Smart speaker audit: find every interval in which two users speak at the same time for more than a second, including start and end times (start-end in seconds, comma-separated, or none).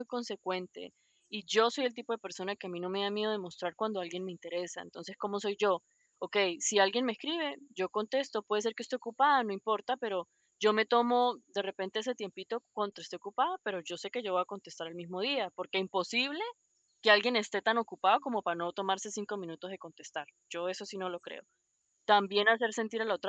none